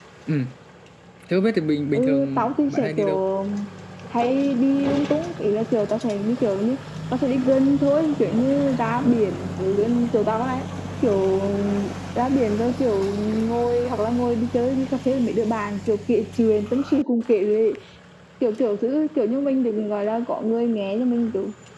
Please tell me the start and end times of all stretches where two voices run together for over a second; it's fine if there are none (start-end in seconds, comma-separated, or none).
1.9-3.2